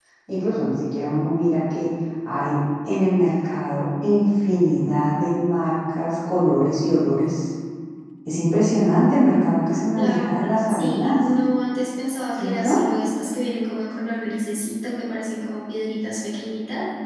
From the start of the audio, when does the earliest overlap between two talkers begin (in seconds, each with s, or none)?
9.9 s